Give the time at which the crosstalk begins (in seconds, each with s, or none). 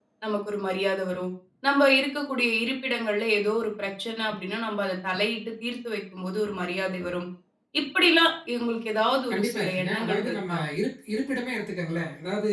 9.3 s